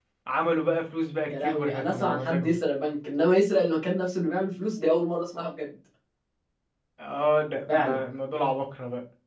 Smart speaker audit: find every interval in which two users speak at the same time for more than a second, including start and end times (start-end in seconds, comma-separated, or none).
1.3-2.5